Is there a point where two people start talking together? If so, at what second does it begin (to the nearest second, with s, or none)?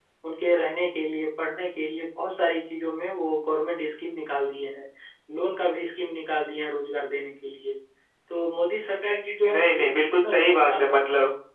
9 s